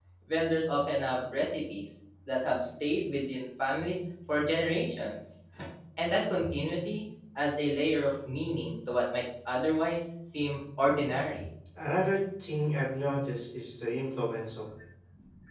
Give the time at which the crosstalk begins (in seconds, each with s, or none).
none